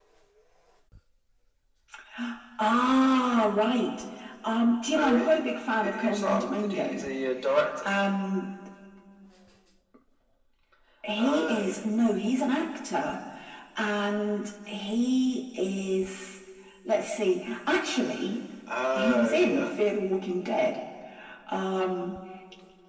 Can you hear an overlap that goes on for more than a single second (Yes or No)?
Yes